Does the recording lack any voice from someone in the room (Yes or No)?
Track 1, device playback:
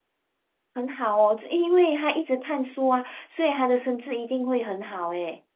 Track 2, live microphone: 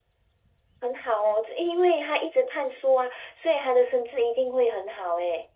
Yes